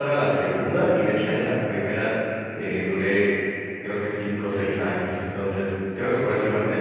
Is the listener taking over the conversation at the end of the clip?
No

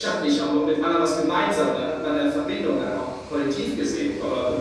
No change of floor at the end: No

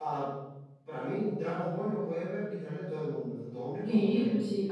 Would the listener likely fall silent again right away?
No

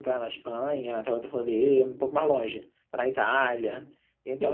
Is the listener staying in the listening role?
No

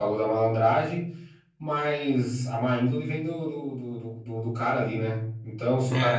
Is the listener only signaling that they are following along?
Yes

